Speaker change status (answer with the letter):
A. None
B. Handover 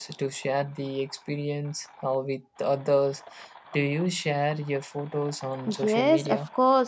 B